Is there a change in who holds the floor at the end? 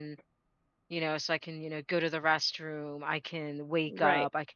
No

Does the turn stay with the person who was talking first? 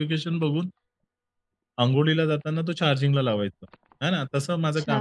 Yes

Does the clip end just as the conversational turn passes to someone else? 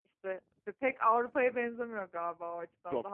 Yes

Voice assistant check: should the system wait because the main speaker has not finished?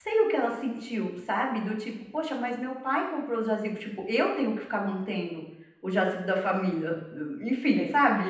No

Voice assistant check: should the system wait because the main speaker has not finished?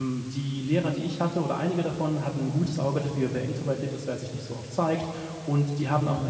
Yes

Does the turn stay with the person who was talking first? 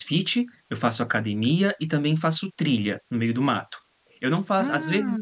Yes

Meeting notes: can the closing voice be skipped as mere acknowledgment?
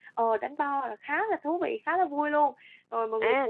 No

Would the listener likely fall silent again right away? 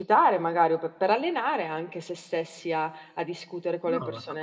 No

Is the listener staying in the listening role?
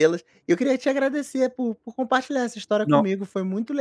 Yes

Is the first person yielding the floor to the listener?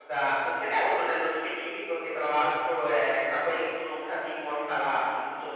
No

